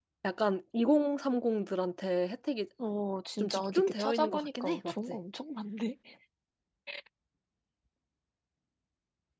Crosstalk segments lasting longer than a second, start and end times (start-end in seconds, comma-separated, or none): 3.4-5.2